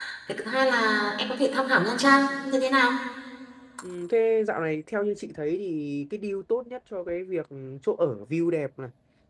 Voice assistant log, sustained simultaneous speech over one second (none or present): none